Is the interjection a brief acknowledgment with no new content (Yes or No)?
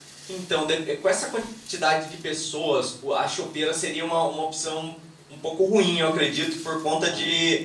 Yes